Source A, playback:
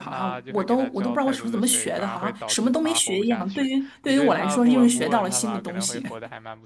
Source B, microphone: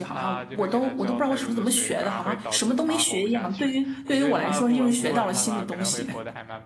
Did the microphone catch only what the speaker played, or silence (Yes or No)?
Yes